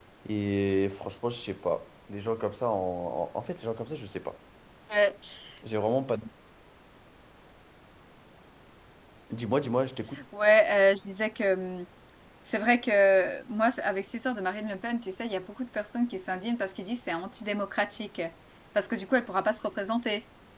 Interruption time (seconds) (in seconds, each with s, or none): none